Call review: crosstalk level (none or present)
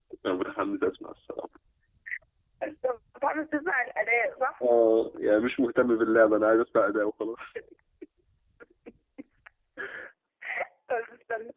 none